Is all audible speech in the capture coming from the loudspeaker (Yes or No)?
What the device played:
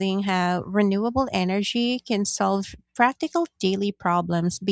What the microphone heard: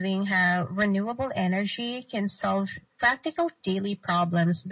Yes